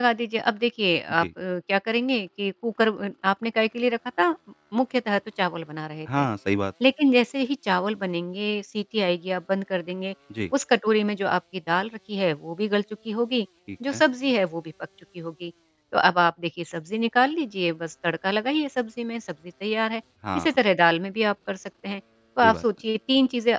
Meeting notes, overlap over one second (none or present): none